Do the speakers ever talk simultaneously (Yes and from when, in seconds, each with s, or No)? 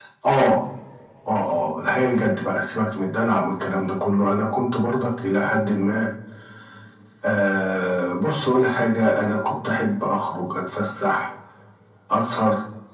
No